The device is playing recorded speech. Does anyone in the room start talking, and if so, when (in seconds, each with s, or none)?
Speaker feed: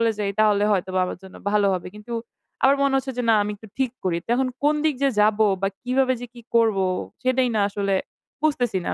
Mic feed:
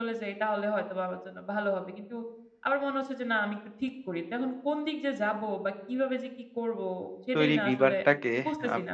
7.4 s